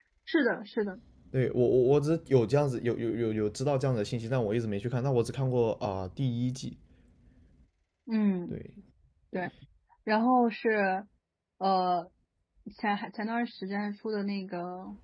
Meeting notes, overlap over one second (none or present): none